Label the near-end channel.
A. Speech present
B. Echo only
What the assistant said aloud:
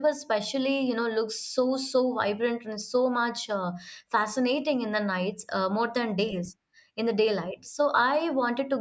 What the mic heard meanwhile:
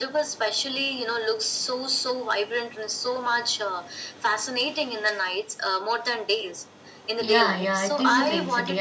A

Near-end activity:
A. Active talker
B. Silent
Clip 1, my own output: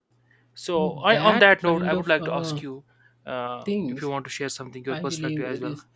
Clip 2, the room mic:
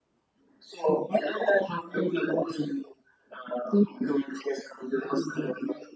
B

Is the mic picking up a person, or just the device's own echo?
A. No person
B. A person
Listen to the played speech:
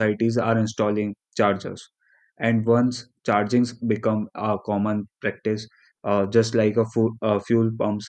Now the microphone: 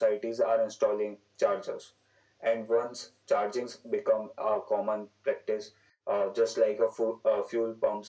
A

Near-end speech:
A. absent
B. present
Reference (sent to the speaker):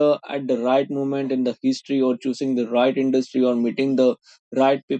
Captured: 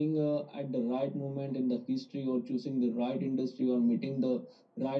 A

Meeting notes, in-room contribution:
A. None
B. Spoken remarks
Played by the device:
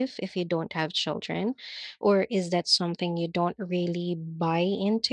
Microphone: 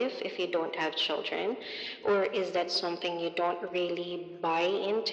A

